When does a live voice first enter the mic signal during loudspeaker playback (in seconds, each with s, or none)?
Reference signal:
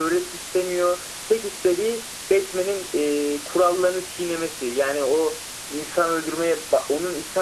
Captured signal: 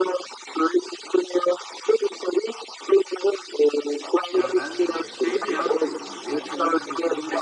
4.3 s